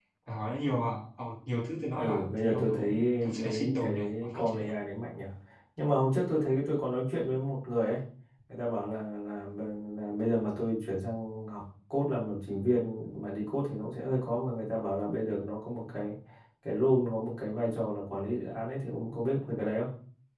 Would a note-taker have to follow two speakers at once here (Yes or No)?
Yes